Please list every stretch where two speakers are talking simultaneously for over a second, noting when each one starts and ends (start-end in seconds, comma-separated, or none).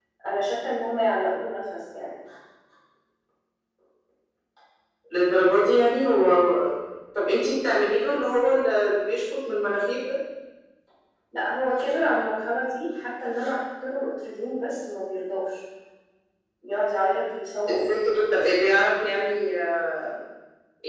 none